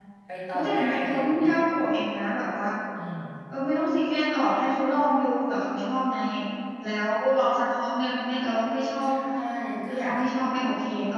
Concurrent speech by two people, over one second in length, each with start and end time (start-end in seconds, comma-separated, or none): 0.5-1.8